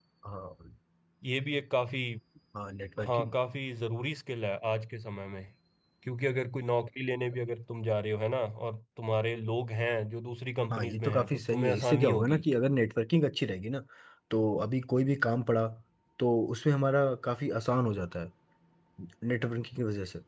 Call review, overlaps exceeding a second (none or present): present